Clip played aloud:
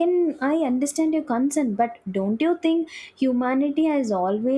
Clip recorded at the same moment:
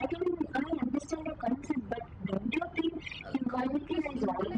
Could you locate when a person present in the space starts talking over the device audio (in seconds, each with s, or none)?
3.2 s